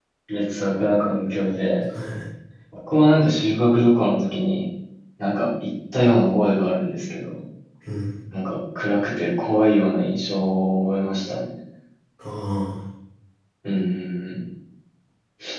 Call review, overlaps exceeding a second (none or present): none